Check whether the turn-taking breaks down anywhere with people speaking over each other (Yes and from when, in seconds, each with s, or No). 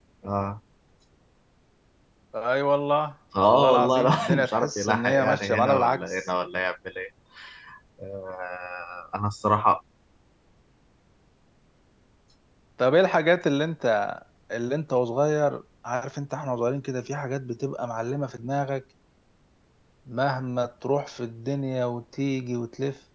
Yes, from 3.3 s